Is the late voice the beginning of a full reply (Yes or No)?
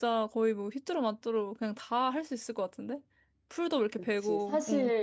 Yes